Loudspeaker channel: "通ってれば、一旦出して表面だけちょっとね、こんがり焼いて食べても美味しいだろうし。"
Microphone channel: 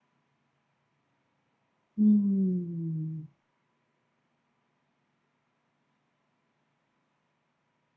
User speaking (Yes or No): Yes